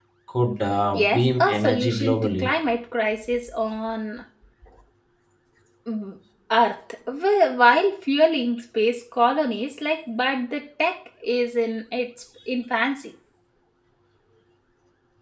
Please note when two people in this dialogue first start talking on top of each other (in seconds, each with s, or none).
0.9 s